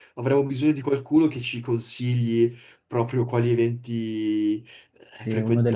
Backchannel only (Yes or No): No